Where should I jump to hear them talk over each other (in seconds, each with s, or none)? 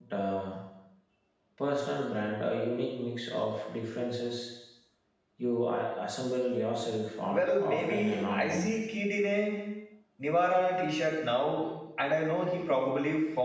7.3 s